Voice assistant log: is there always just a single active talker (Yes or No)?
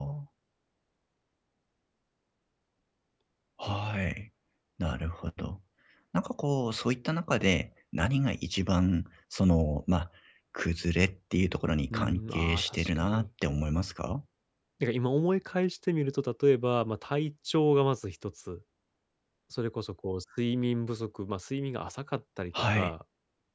No